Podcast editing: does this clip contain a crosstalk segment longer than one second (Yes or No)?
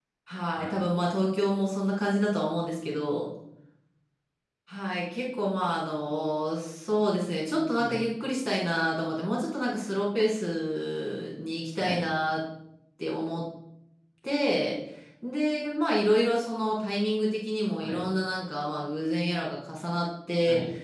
No